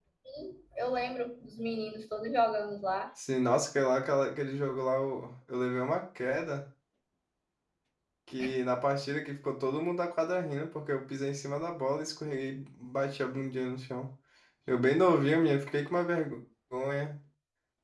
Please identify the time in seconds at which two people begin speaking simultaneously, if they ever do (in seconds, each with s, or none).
none